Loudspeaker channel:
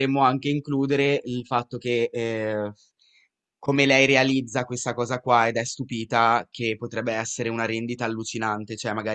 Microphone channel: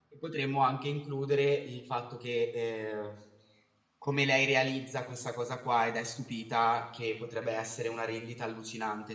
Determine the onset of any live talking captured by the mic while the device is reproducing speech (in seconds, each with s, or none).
none